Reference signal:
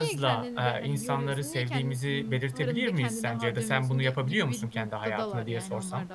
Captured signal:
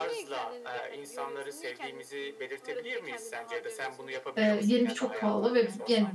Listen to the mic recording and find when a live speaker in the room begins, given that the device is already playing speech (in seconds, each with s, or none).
4.4 s